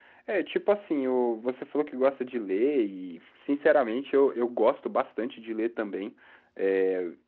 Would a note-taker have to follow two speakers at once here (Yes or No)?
No